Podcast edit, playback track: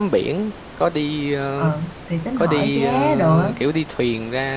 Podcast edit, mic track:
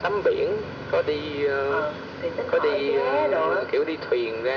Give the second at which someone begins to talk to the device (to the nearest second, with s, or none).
none